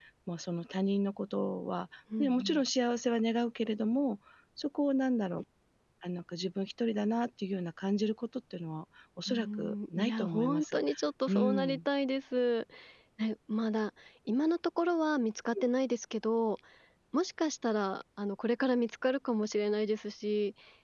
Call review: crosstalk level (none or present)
present